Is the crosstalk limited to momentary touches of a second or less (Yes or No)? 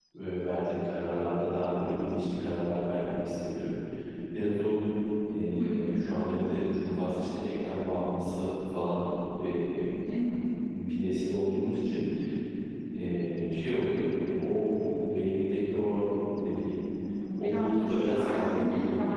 No